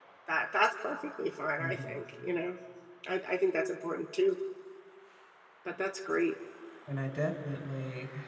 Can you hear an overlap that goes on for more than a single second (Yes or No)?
No